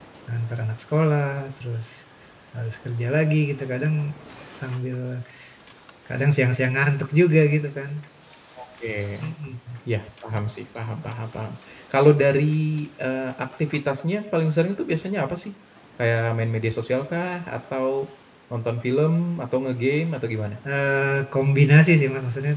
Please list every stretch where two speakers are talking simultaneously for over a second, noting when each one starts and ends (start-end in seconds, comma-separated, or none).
none